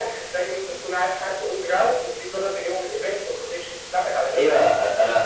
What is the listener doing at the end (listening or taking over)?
taking over